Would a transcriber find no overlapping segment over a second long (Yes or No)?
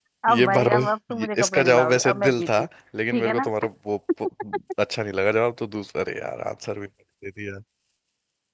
No